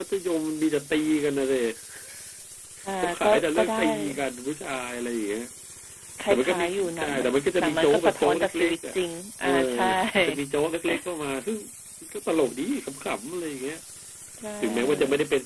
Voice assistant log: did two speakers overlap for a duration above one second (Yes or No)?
Yes